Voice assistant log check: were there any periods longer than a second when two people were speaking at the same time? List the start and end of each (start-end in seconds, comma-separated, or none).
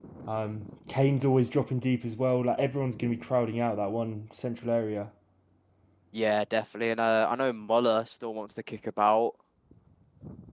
none